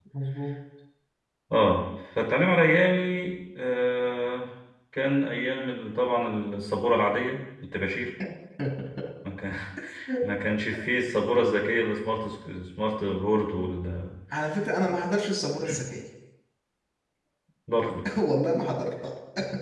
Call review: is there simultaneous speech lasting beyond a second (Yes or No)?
No